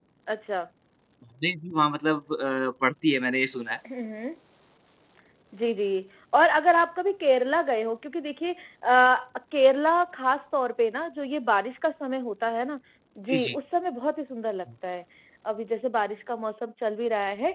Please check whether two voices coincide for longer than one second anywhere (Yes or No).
No